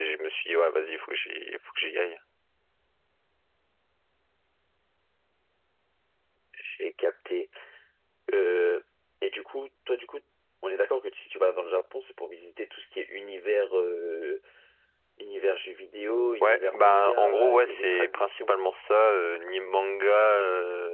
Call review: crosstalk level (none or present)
present